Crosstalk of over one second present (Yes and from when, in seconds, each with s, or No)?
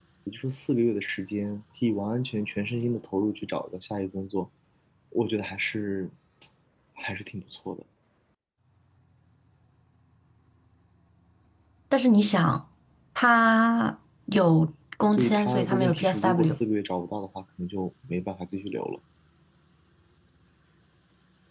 Yes, from 15.1 s